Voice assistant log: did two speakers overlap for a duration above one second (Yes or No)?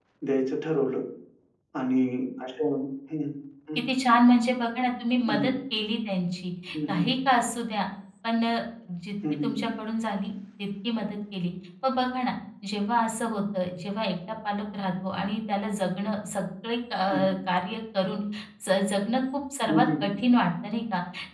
No